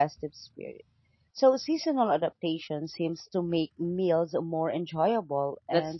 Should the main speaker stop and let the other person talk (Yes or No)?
Yes